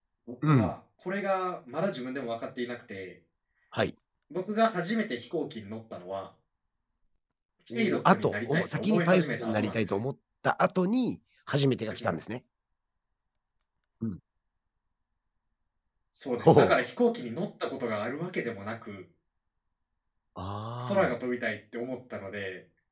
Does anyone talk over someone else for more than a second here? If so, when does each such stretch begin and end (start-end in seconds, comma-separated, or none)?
7.7-10.0